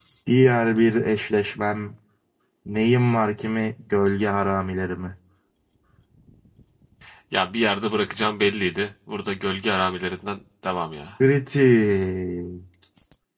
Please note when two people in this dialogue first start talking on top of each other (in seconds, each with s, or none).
none